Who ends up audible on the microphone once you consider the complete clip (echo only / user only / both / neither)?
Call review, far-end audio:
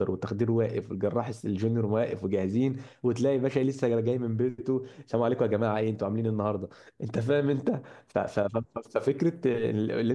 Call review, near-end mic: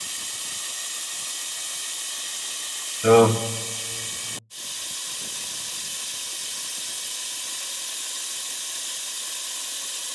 user only